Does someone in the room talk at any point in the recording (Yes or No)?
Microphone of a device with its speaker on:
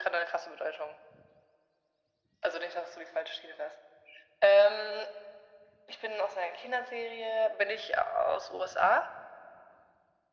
No